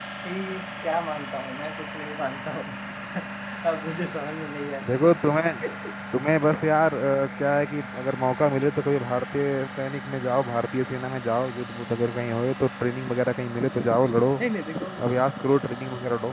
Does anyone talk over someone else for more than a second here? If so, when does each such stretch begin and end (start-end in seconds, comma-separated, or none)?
none